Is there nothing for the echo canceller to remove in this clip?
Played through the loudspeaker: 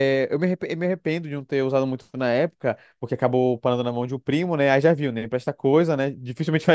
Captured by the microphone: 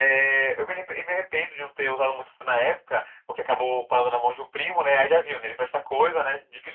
No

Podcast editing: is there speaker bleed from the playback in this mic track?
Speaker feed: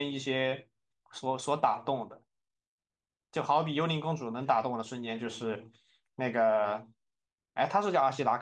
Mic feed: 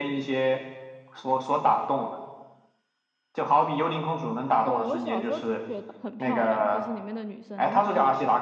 Yes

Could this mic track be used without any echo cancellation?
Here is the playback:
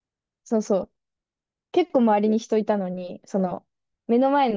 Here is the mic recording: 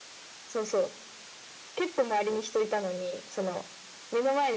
No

